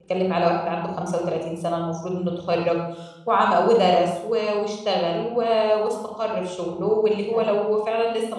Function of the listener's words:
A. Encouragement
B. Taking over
A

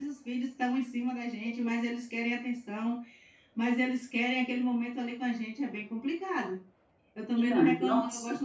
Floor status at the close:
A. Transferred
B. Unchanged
B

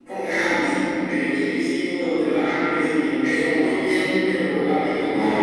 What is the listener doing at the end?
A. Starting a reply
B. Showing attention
B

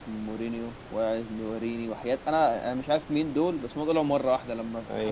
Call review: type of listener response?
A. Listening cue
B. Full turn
A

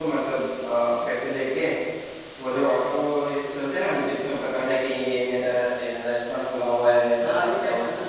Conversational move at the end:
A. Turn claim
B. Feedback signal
A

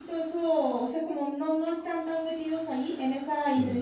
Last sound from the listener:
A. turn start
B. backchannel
B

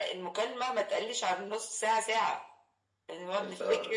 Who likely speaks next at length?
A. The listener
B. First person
B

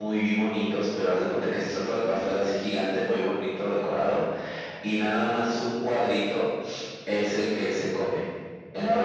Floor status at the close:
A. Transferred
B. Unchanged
B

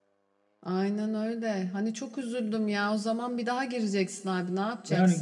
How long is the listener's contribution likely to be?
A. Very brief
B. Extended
B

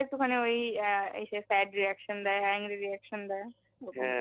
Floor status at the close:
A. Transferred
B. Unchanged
A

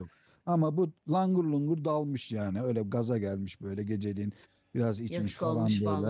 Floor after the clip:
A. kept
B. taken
B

